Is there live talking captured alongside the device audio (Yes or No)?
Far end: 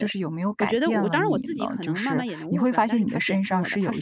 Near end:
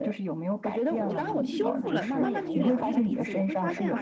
Yes